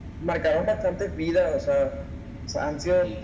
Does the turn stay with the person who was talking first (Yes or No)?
Yes